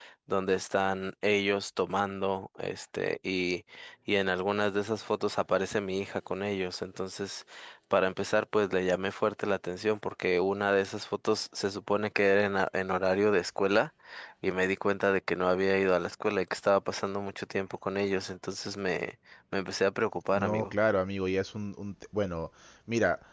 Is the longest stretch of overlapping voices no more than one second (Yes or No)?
Yes